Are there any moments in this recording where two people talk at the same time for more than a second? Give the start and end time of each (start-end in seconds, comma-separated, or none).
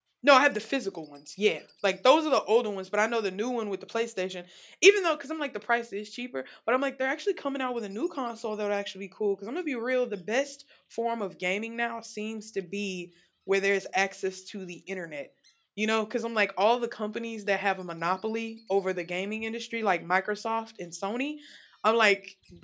none